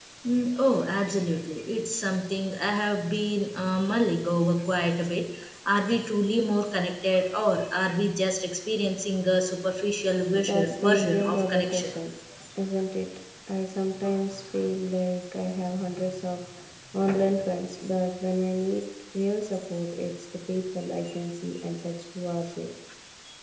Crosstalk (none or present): present